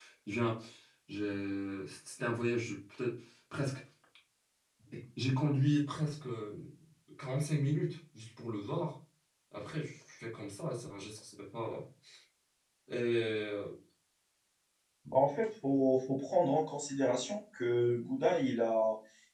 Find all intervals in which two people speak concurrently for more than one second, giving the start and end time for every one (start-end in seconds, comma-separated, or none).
none